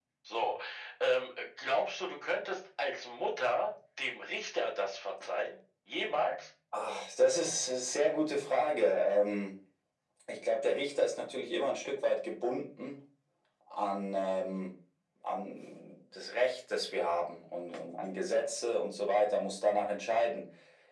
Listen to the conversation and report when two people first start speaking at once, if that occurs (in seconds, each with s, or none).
none